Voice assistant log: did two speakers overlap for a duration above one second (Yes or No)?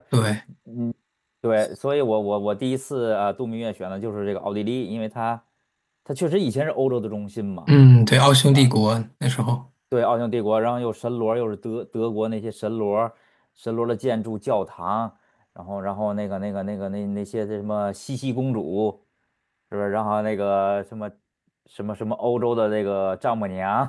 No